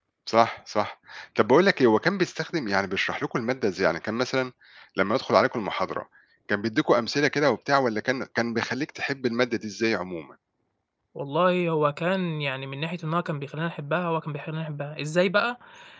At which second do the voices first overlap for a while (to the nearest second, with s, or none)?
none